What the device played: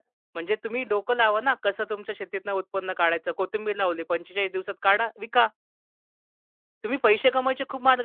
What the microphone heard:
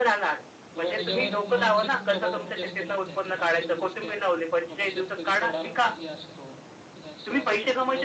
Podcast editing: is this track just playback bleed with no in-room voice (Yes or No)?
No